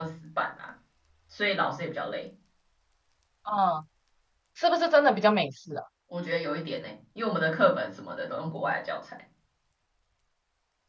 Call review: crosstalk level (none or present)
none